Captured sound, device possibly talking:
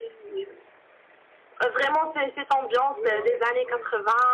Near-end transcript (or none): Ouais, ouais, ouais.